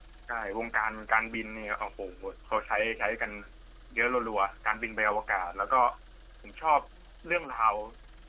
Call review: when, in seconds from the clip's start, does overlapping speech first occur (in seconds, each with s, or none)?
none